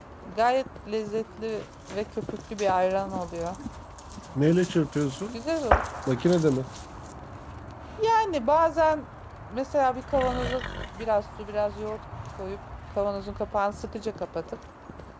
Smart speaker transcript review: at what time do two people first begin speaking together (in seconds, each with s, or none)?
none